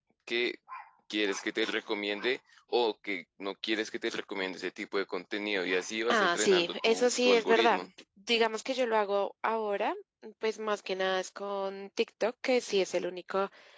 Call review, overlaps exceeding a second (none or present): present